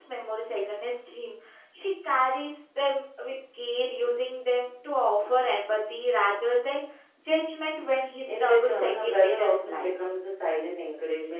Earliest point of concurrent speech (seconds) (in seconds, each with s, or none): 8.3 s